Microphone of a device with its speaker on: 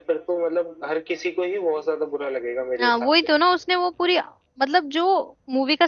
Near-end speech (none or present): present